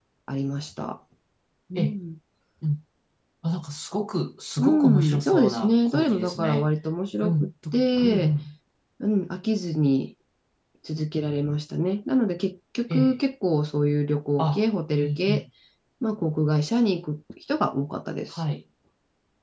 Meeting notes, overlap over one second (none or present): present